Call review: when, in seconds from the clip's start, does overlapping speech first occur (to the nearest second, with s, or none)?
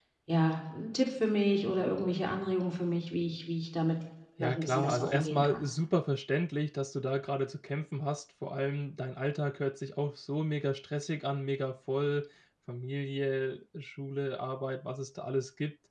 4 s